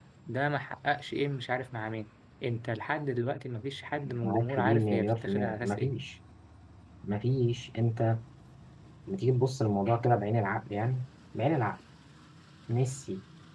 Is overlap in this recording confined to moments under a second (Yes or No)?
No